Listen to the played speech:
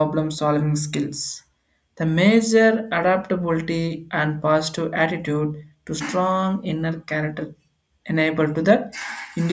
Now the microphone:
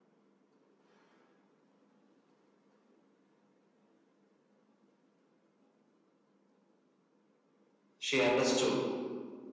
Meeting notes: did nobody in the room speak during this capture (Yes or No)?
No